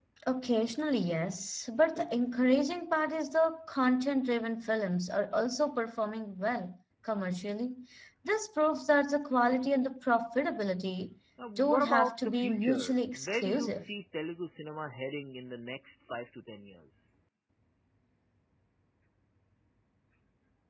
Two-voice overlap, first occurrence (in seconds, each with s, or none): 11.4 s